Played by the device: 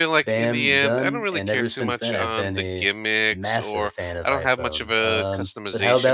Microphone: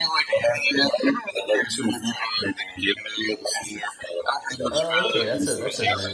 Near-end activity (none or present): present